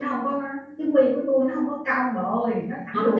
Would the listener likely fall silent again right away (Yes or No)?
No